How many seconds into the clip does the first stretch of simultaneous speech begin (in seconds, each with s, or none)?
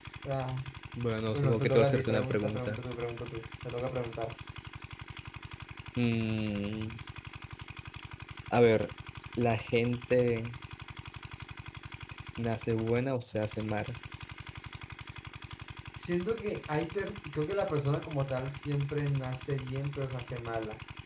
1.3 s